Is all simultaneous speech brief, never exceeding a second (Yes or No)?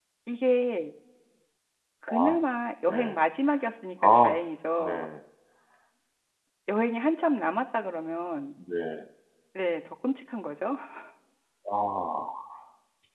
Yes